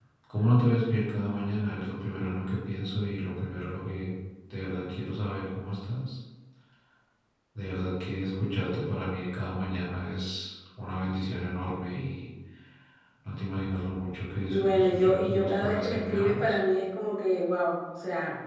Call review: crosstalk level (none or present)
present